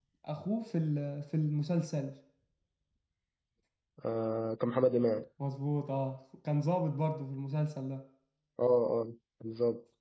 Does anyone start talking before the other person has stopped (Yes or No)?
No